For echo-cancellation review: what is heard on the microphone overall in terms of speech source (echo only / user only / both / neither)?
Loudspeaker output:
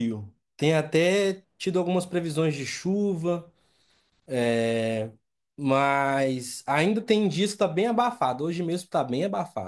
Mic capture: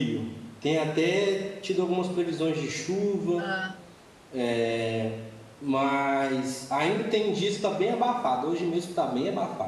both